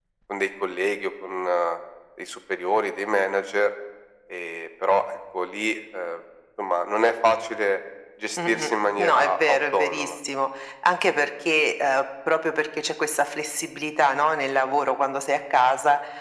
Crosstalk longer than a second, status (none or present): present